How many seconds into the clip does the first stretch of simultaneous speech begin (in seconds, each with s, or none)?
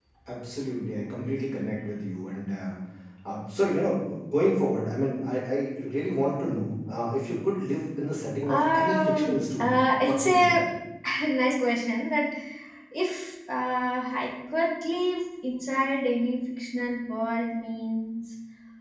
8.4 s